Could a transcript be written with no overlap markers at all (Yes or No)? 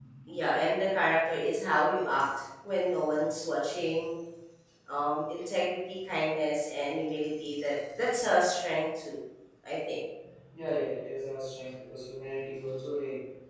Yes